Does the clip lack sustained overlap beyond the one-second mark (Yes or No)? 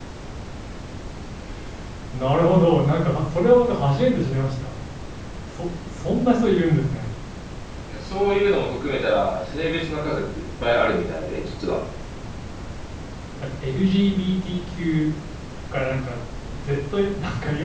Yes